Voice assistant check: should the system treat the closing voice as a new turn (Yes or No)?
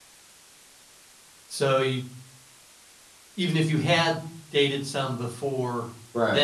No